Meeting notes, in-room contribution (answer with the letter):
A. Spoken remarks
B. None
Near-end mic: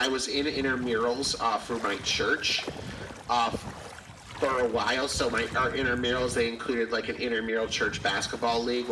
B